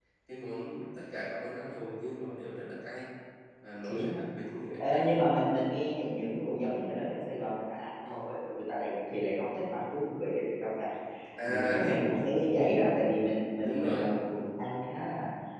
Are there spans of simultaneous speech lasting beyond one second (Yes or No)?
No